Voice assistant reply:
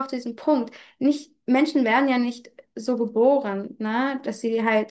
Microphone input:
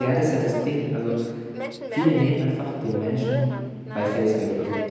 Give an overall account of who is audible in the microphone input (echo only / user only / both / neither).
both